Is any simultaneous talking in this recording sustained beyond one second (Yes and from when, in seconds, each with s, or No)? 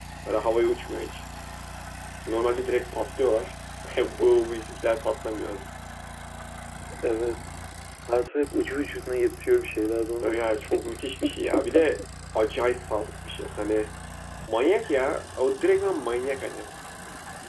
Yes, from 10.2 s